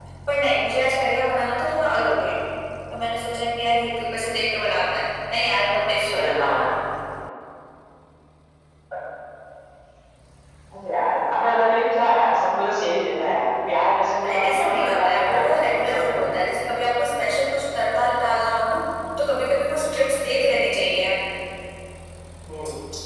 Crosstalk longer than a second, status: present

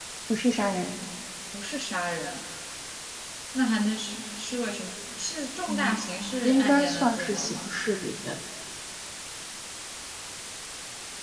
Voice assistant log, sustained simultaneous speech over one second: present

